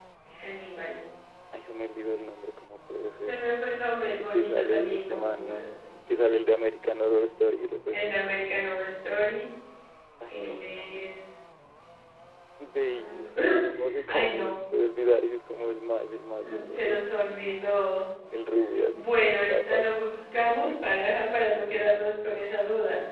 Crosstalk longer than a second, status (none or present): present